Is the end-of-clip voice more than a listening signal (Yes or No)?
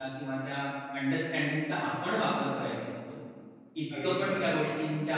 No